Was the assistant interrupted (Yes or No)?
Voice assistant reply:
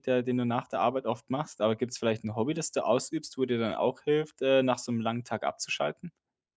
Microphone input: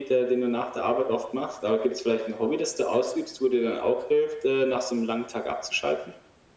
No